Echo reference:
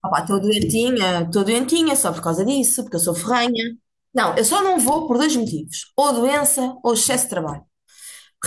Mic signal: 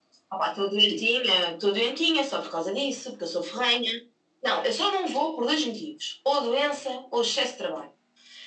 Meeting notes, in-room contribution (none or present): none